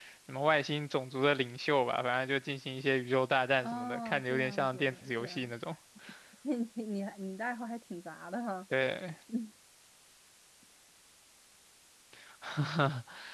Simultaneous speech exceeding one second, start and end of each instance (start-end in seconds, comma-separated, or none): 3.6-5.3